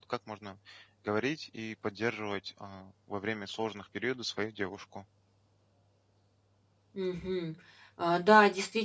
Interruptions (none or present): none